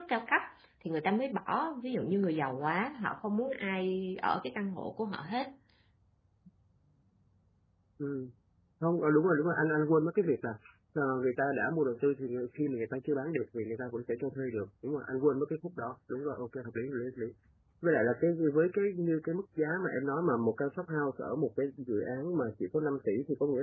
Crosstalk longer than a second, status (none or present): none